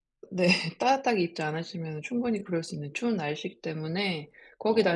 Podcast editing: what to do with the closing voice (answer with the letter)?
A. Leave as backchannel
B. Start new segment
A